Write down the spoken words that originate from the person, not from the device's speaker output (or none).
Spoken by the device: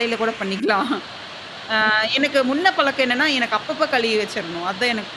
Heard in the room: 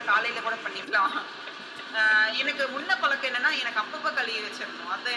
none